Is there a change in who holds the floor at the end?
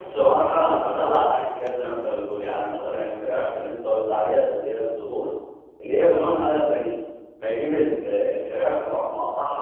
No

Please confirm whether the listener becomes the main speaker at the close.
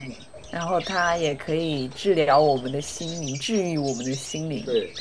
Yes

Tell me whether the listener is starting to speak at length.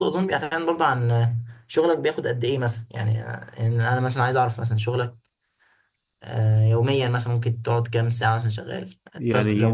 Yes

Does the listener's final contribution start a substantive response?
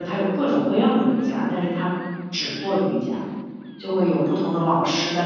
No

